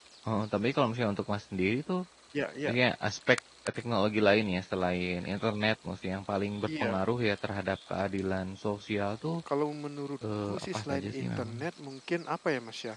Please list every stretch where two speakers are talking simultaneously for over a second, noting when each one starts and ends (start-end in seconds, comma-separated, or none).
10.4-11.7